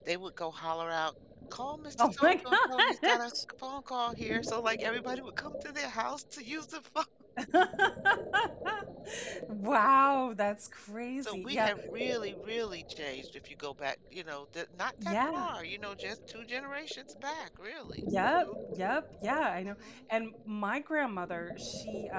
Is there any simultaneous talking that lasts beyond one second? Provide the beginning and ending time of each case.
2.0-3.3

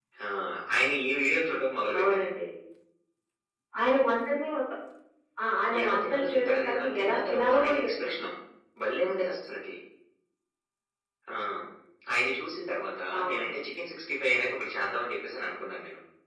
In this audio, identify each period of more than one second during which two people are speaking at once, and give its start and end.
5.8-8.1

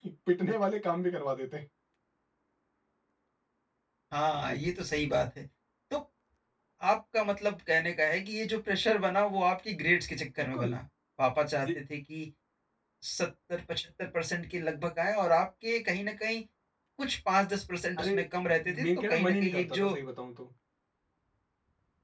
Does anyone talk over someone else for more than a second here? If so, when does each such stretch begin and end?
18.6-19.9

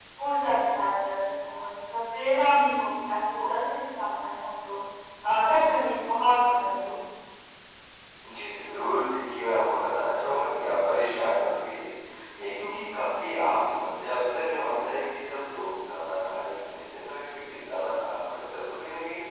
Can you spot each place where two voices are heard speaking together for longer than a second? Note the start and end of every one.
none

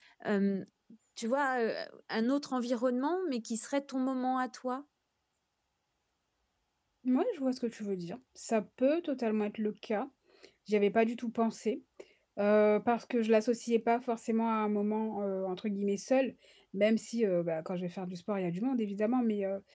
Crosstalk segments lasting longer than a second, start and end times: none

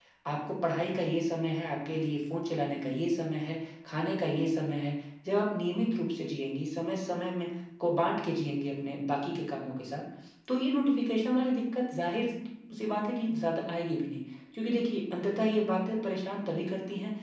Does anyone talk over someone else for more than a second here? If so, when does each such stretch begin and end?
none

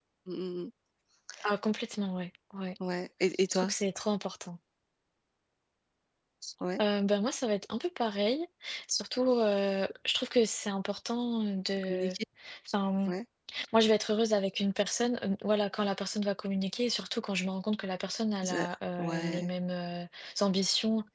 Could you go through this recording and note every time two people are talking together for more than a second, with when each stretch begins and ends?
none

